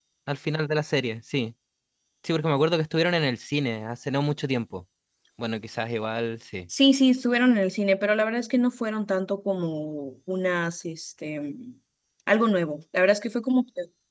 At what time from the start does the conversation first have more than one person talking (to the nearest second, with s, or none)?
none